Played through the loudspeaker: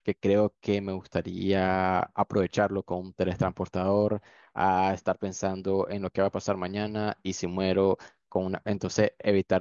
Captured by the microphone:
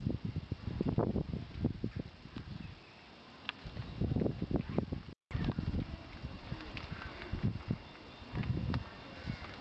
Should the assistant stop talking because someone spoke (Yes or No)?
No